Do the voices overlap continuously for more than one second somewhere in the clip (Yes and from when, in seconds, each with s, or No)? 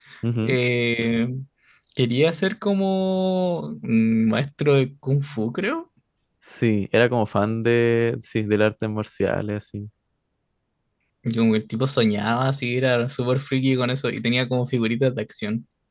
No